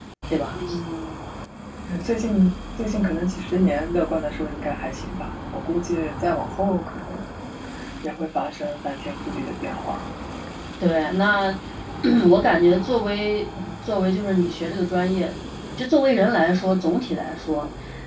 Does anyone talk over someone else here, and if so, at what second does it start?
none

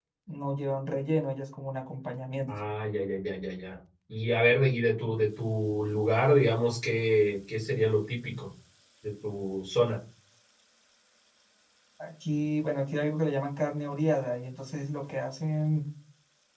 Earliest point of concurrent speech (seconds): none

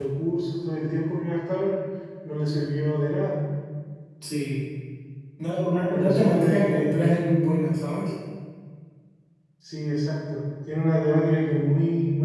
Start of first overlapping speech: 5.9 s

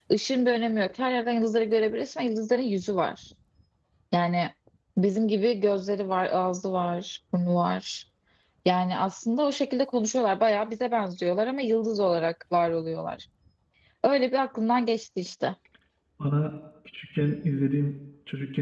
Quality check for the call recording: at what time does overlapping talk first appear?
none

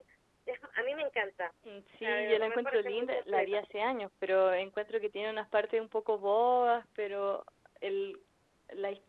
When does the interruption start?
2.0 s

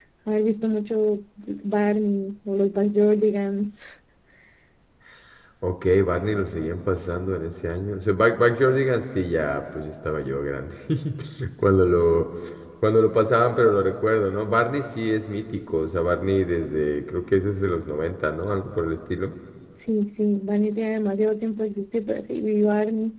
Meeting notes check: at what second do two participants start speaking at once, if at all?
none

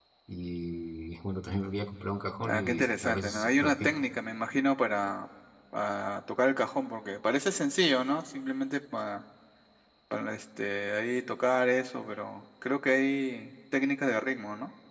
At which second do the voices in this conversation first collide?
2.5 s

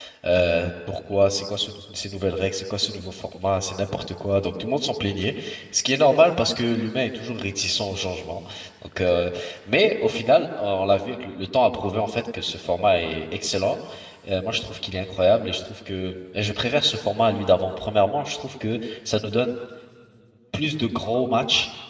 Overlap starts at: none

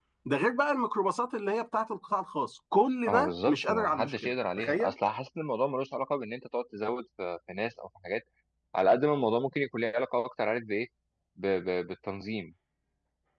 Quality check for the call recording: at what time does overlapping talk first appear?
3.0 s

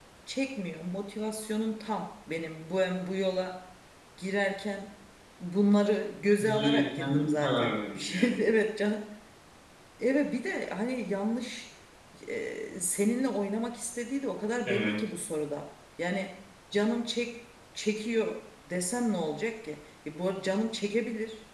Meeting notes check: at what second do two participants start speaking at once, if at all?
6.4 s

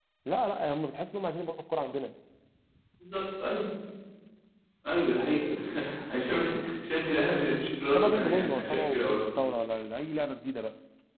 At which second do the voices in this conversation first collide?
7.9 s

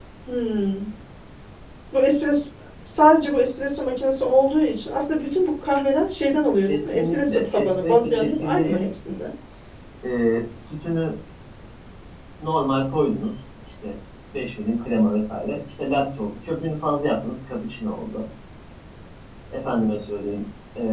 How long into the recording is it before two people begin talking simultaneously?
6.7 s

